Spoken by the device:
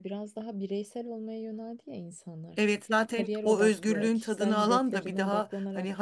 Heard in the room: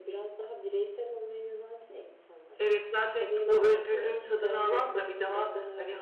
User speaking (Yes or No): No